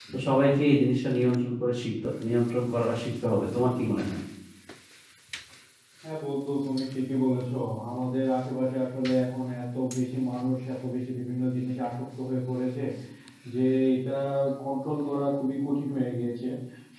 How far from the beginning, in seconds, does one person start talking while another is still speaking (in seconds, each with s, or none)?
none